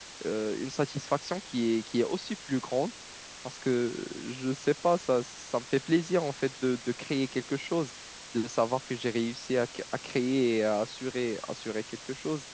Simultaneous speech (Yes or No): No